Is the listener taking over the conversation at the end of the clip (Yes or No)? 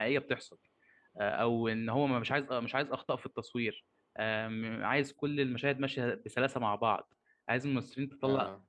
No